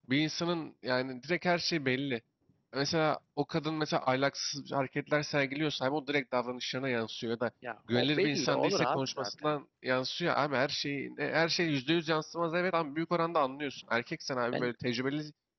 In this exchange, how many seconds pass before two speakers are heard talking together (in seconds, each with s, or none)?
7.9 s